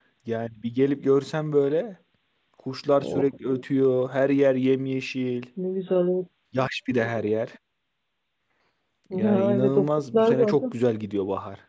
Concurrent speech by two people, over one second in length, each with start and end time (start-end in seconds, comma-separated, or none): 9.1-10.7